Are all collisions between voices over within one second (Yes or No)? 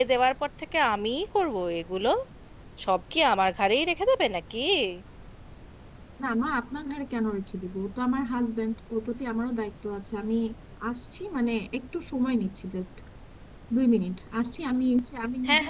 Yes